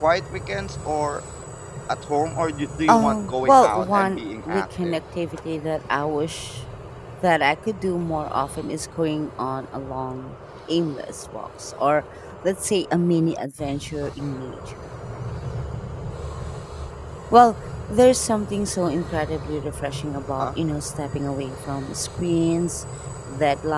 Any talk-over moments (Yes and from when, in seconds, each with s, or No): Yes, from 2.9 s